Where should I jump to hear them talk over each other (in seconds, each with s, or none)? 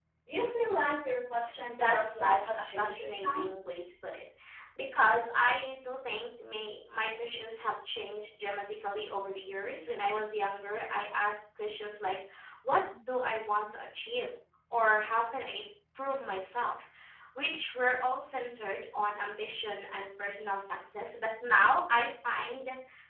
1.7 s